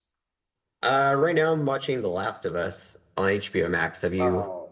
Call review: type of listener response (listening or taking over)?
taking over